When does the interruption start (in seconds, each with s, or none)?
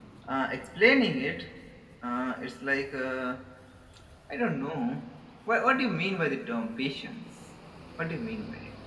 none